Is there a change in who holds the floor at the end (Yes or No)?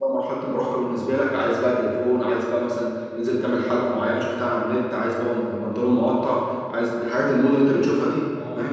No